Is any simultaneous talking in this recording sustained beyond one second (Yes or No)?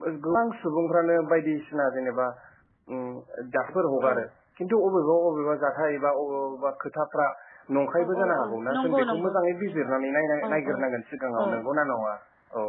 Yes